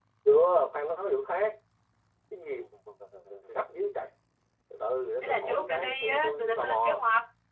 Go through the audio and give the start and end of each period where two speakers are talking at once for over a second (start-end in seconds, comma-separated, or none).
5.2-7.0